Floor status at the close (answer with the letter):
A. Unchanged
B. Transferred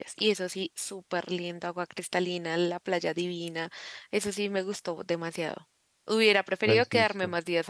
A